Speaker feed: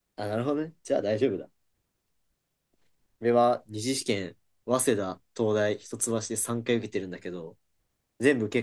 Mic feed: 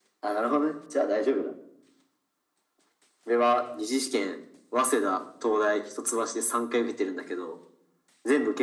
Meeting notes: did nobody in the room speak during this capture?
Yes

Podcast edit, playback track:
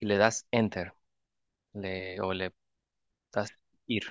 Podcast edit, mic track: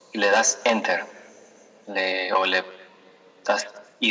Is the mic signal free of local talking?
Yes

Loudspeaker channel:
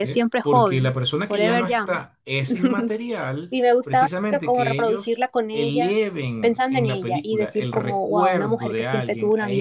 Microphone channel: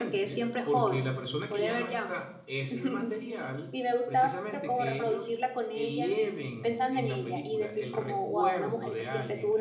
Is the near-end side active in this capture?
No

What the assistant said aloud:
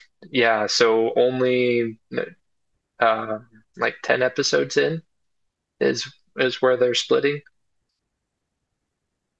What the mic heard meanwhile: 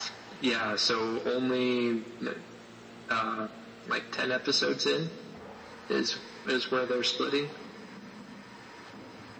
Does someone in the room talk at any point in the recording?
No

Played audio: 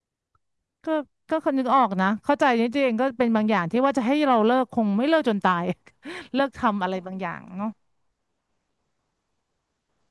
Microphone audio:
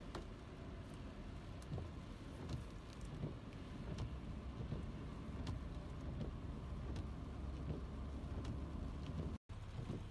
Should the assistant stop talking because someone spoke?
No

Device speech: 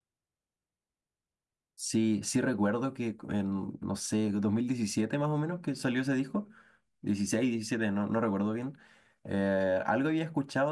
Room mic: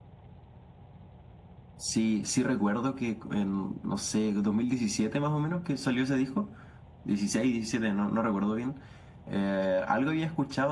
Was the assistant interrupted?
No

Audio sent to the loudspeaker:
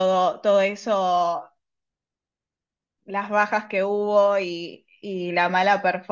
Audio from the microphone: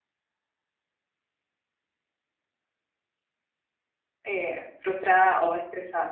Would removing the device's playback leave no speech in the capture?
No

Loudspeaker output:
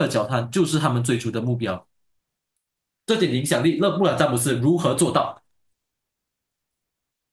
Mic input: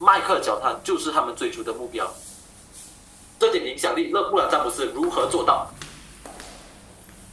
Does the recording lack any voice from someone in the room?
Yes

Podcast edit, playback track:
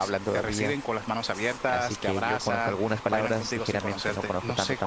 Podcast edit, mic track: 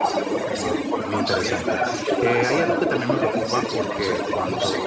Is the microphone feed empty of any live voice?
No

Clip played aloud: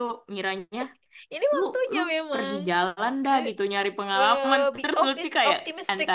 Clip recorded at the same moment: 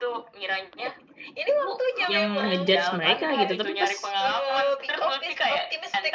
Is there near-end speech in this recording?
Yes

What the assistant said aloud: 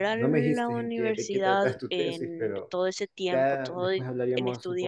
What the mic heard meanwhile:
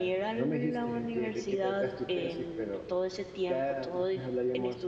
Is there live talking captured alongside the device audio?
No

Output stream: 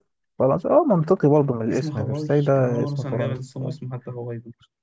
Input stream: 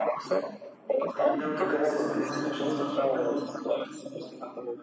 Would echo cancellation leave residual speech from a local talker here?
Yes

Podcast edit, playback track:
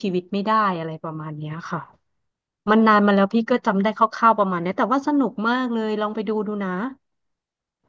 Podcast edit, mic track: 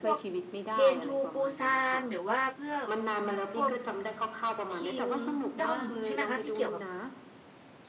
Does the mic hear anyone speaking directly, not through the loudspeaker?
Yes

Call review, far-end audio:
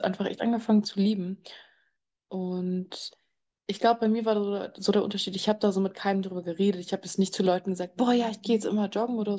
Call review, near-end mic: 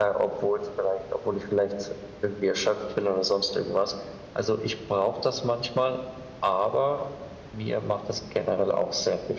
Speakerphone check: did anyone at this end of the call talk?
Yes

